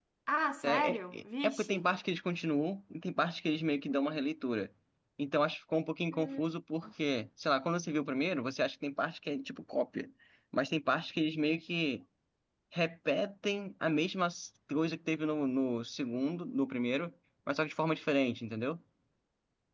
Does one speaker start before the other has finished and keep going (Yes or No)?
Yes